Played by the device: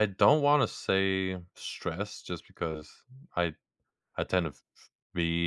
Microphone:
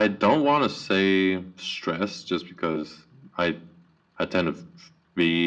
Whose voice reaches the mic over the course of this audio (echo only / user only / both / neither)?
echo only